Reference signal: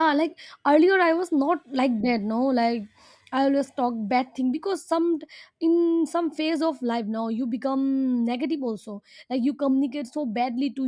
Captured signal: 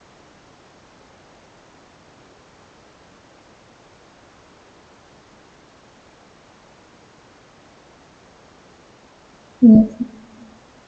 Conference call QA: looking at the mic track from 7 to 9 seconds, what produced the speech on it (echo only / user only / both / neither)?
neither